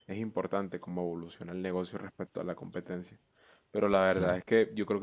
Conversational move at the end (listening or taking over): listening